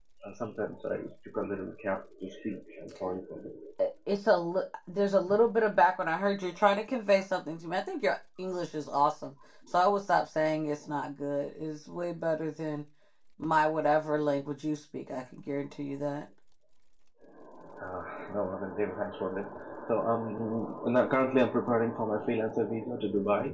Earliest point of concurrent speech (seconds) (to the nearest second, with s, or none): none